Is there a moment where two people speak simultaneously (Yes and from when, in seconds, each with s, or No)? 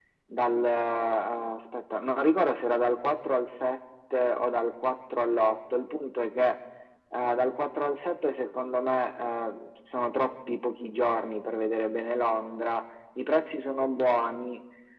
No